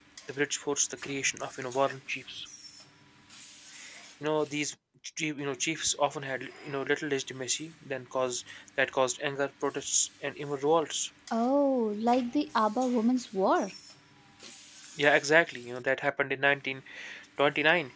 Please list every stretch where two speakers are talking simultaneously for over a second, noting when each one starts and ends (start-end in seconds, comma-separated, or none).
none